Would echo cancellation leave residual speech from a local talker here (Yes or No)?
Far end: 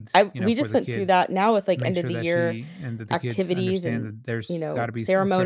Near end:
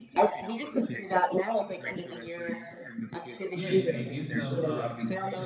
Yes